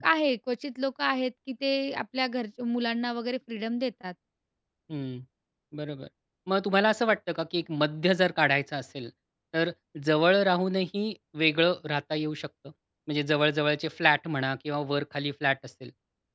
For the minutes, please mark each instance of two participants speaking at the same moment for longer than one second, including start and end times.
none

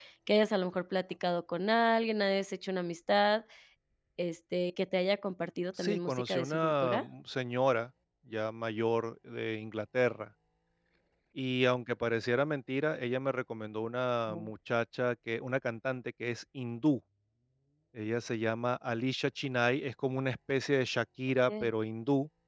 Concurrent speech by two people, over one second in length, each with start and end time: 5.8-7.0

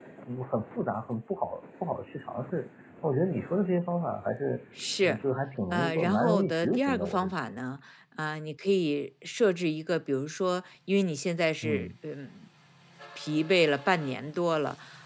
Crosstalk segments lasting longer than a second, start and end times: 5.7-7.3

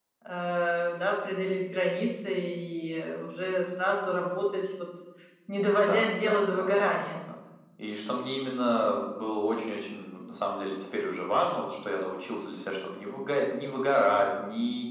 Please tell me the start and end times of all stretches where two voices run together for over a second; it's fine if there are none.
5.8-7.0

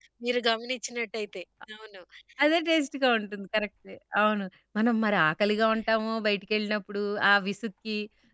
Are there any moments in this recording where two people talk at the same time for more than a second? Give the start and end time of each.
none

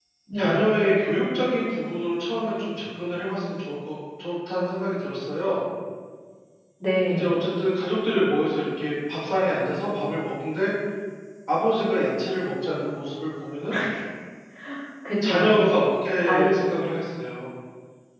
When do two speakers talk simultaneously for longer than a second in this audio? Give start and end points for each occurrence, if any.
none

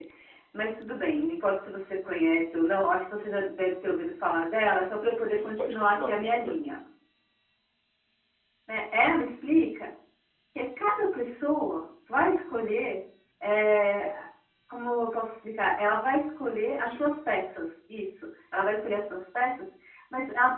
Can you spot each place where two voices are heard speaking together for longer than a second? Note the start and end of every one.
5.2-6.5

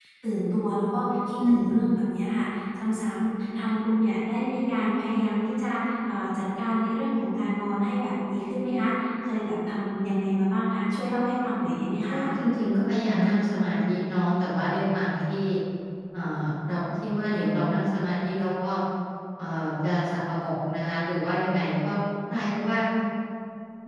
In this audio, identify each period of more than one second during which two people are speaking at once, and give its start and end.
none

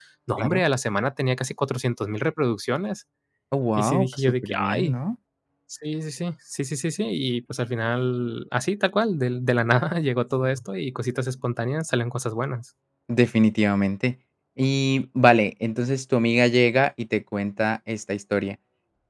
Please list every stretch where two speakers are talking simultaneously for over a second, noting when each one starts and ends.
3.8-5.0

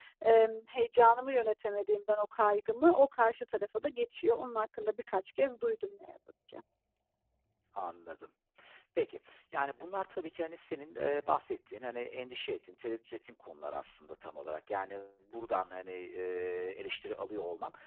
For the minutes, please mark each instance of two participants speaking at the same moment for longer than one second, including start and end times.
none

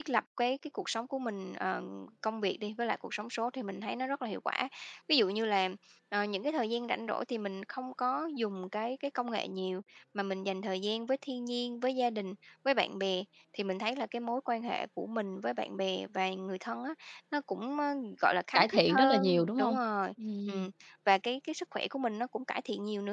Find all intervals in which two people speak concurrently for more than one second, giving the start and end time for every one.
18.5-19.8

